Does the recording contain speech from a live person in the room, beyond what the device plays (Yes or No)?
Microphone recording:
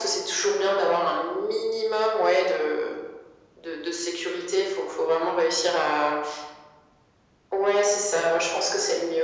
No